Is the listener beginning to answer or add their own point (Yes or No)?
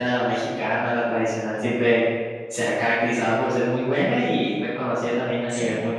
No